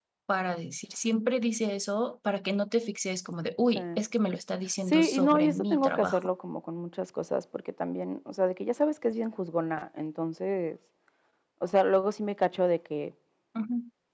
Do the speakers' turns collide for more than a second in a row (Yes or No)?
Yes